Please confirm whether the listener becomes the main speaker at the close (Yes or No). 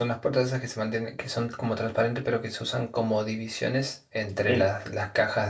No